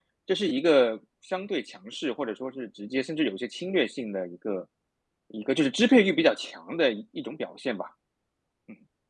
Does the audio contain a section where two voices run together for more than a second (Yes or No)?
No